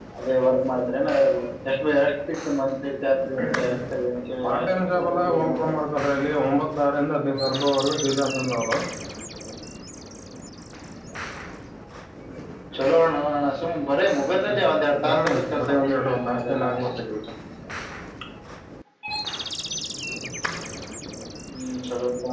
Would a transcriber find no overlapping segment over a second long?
No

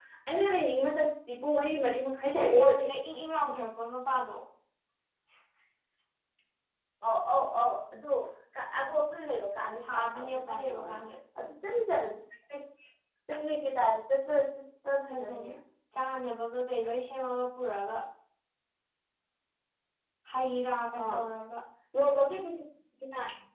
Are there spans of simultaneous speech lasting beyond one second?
Yes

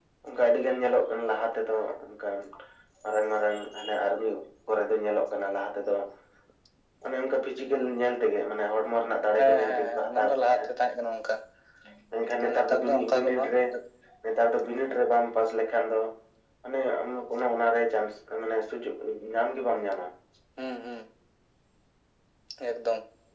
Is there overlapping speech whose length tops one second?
Yes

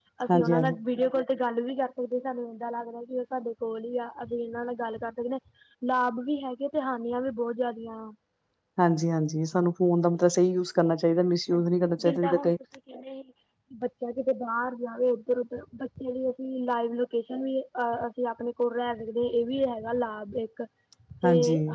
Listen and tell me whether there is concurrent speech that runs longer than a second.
No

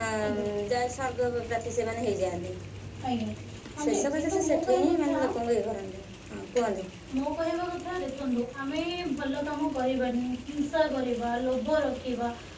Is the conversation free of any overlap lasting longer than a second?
No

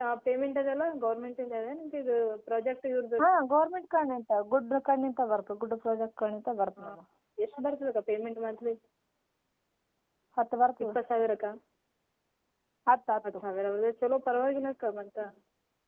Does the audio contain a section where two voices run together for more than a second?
No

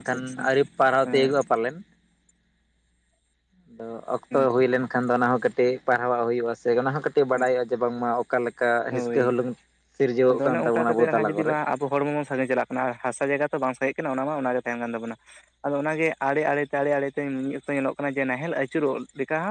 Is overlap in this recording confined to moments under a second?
No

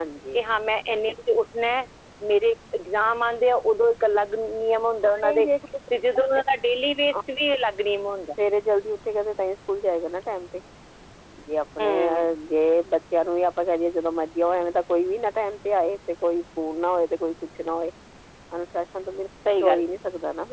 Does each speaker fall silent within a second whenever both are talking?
Yes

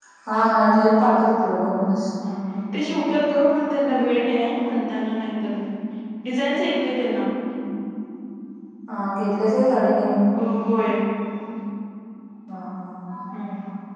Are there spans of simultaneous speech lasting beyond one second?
No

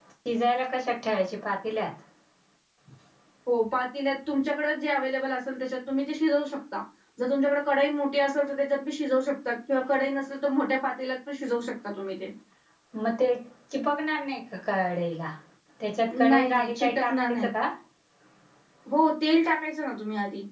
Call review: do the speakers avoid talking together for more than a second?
No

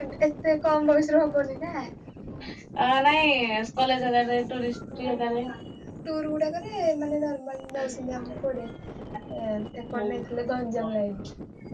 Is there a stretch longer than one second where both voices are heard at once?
No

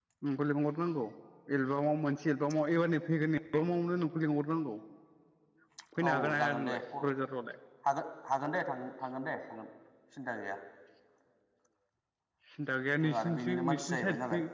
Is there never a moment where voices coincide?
No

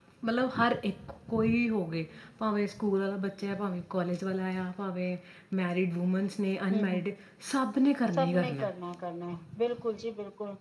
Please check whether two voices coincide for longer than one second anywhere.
No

